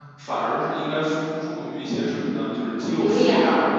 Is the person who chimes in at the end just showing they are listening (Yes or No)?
Yes